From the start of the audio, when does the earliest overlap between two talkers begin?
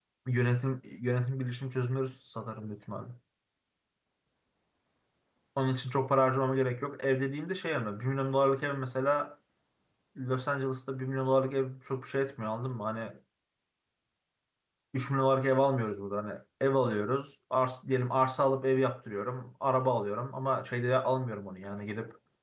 none

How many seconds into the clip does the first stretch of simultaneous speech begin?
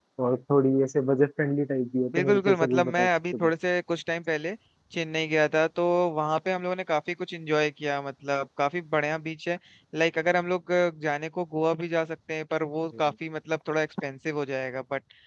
2.1 s

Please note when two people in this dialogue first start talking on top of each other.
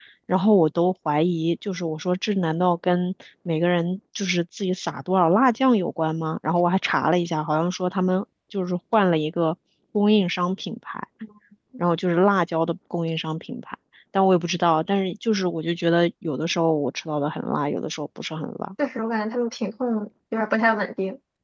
none

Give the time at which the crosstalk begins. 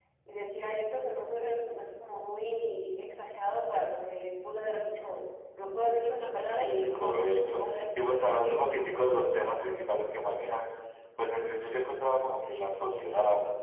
6.5 s

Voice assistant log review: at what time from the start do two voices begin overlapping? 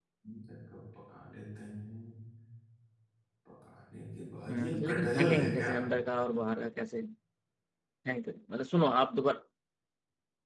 4.5 s

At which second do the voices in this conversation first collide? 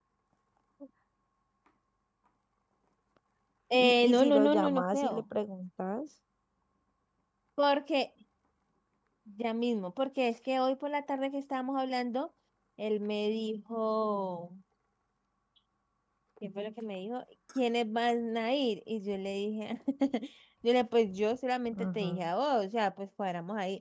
3.8 s

